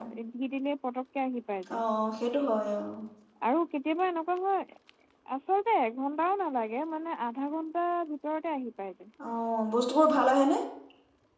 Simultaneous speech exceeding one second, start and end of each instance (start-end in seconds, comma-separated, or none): none